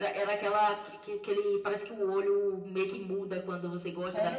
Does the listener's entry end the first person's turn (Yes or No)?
Yes